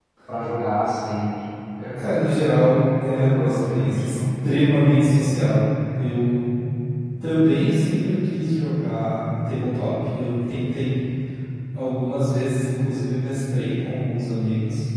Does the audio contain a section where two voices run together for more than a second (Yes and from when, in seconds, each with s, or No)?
Yes, from 2.0 s